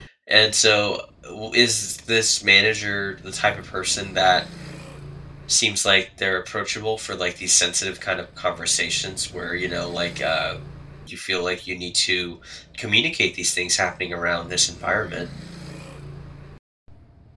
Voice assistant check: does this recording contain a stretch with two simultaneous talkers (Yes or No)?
No